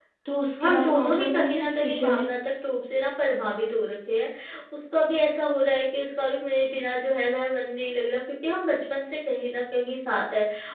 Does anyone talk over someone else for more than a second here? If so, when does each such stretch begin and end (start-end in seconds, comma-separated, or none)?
0.6-2.3